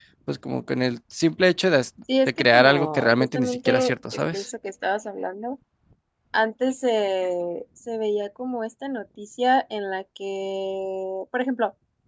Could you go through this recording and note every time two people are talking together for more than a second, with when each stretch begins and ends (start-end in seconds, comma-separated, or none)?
2.3-4.5